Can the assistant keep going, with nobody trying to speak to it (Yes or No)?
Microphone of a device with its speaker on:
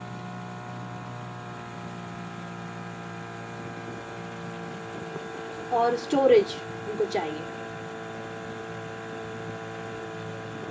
No